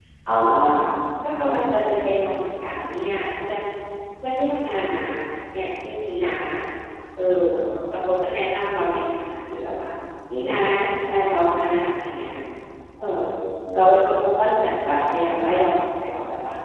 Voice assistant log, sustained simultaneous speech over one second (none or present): none